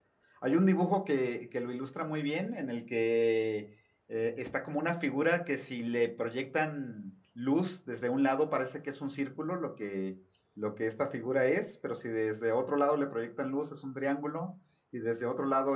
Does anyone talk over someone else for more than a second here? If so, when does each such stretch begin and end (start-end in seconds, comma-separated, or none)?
none